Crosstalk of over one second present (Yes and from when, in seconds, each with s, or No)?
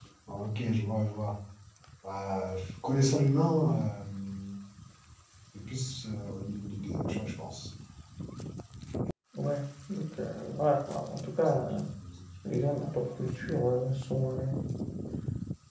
No